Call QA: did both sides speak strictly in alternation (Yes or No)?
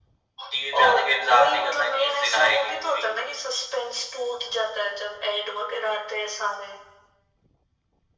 No